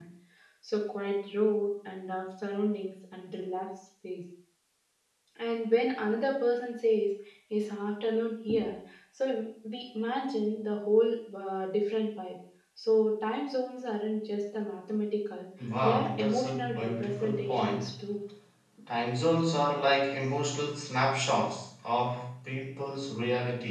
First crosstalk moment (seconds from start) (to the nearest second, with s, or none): 16 s